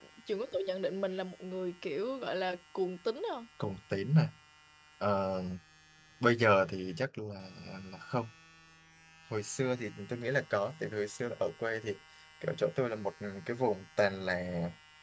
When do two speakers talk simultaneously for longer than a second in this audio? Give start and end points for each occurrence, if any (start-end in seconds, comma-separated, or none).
none